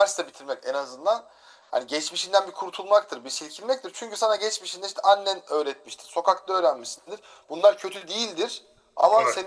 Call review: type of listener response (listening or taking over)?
listening